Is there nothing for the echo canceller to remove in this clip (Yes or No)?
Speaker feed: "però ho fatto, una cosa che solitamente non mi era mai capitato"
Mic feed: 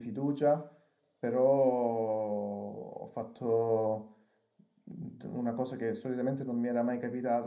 No